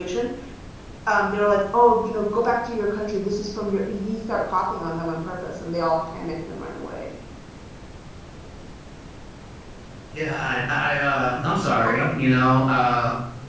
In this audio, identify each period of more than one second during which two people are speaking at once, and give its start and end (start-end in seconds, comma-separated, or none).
none